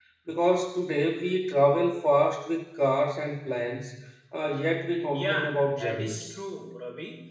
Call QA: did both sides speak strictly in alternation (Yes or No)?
No